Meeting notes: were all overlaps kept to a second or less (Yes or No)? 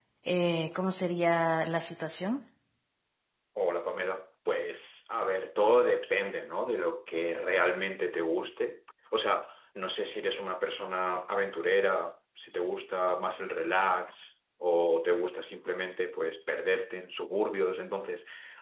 Yes